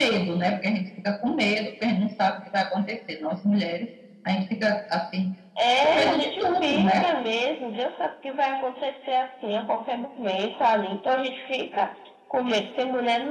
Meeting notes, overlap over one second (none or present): present